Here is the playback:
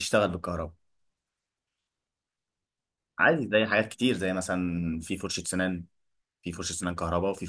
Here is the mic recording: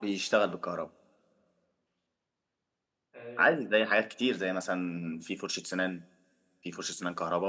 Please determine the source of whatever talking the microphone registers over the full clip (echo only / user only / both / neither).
both